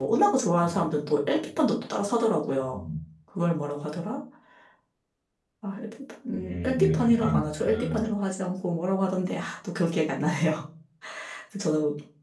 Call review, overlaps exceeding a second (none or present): present